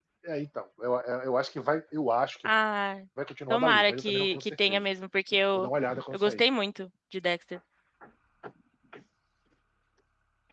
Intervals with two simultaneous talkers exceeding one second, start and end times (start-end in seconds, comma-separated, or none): 3.5-4.8